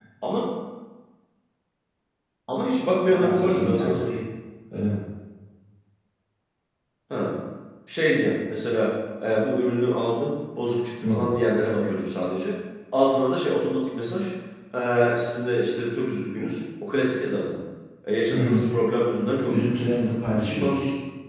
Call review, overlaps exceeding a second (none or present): present